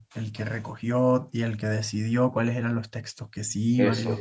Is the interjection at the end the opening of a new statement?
Yes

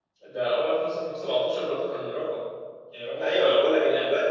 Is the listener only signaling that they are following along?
No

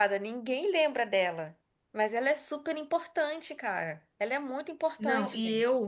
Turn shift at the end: Yes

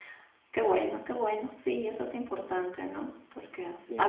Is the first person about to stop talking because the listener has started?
No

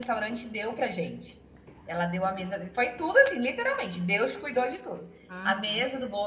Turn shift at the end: No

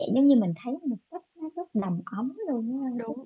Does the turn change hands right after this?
Yes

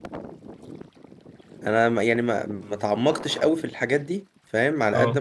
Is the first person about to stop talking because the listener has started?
No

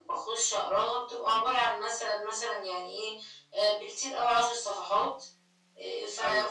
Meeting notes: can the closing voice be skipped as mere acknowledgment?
Yes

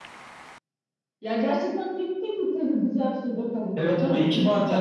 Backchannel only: No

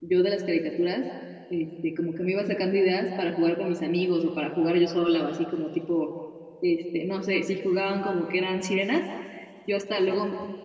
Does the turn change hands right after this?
No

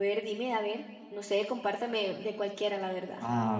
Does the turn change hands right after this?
Yes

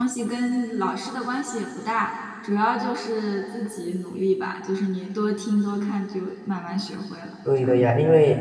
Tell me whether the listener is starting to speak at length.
Yes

